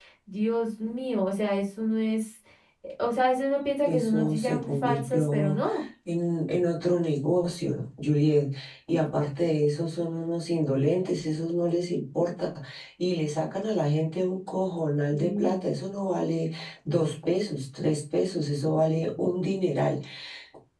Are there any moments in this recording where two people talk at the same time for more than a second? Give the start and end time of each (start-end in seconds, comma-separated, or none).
3.9-5.6